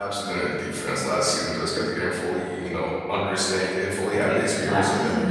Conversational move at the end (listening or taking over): taking over